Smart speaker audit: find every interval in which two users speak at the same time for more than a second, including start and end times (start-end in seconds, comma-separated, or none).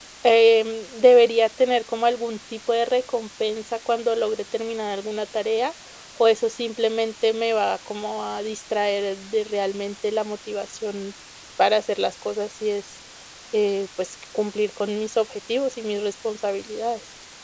none